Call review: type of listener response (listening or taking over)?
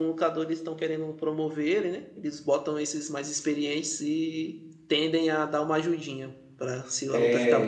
taking over